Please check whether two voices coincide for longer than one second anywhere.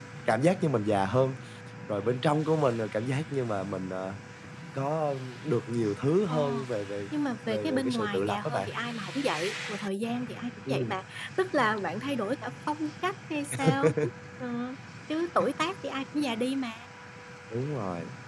Yes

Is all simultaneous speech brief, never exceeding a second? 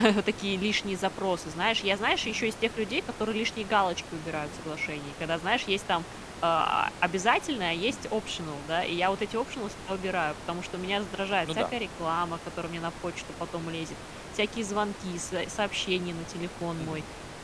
Yes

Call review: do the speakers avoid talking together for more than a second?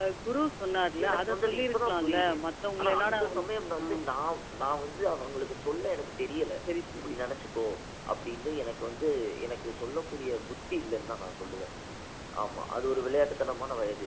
No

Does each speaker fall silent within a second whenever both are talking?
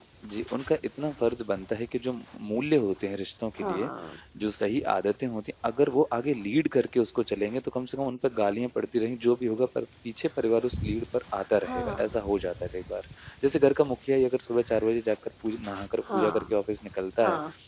Yes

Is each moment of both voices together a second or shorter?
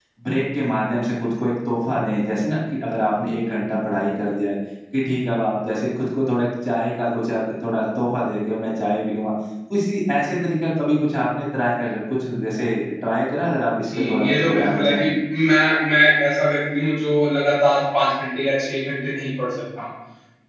No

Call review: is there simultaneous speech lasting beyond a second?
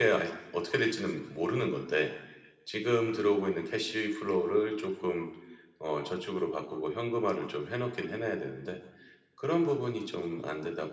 No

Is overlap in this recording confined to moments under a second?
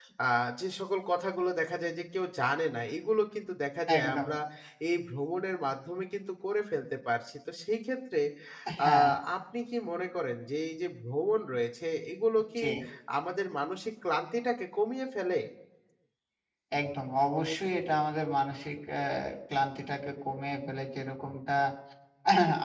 Yes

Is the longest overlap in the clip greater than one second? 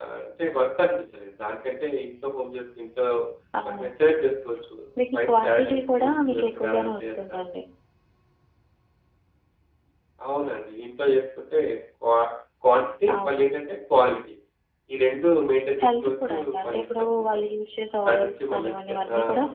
Yes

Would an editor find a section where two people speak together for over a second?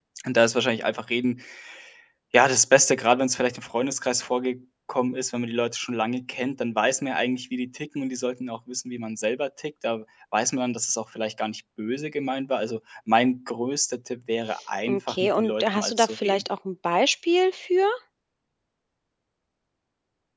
Yes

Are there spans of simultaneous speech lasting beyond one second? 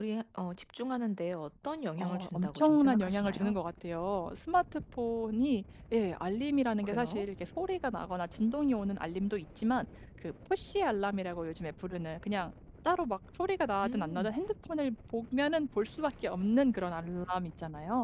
Yes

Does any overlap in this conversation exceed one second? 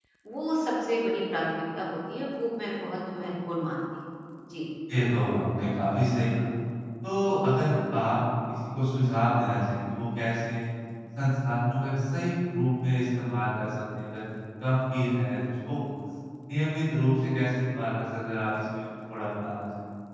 No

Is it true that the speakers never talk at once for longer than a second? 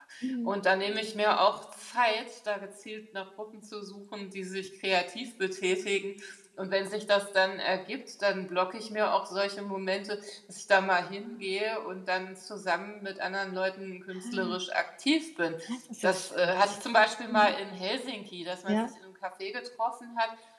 Yes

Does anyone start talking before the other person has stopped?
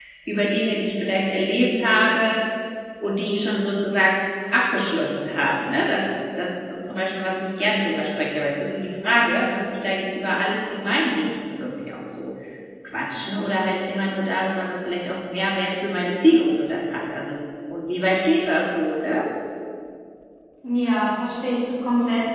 No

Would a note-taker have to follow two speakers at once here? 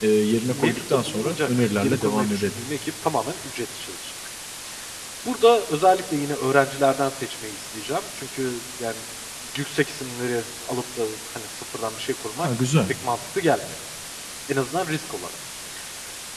Yes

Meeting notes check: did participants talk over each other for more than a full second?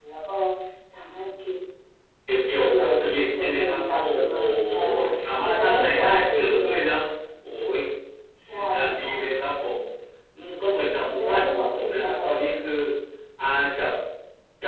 Yes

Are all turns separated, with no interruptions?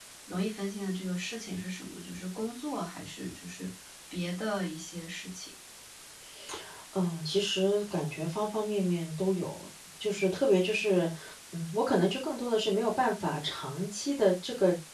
Yes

